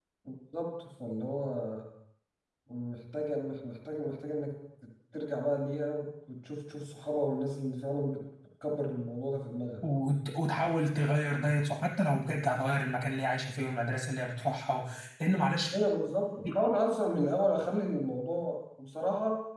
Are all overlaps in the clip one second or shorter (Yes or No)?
Yes